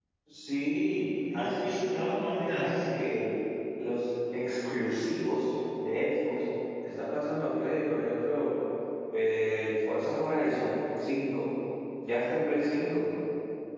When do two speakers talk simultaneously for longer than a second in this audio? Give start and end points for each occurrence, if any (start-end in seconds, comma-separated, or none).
1.3-3.0